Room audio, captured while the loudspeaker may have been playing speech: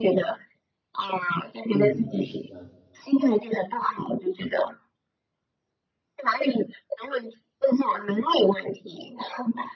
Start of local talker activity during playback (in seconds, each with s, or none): 1.7 s